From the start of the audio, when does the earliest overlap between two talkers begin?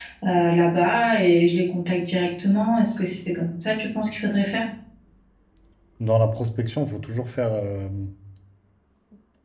none

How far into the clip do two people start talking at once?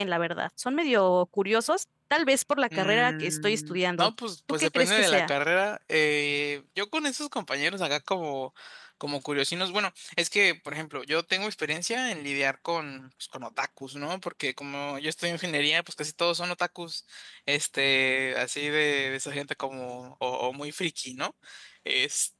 3 s

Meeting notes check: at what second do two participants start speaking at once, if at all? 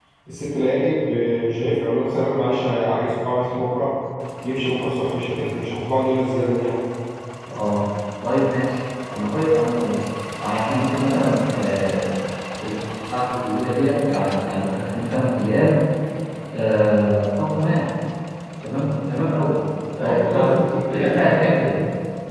20 s

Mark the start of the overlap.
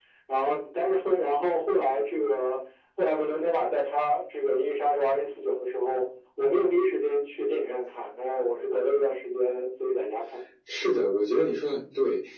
none

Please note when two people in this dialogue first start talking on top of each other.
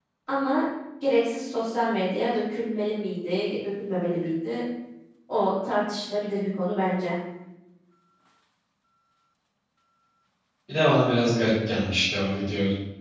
none

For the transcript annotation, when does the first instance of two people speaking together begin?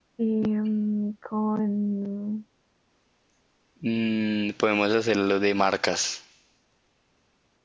none

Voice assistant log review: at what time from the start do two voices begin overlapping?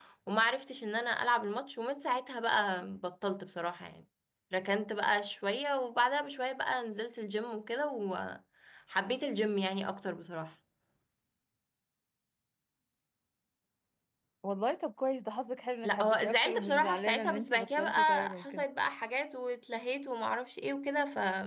16 s

